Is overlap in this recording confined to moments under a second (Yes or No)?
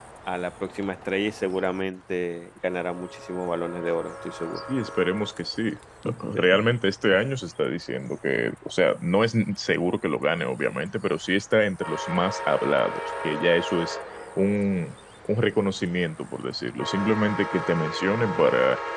Yes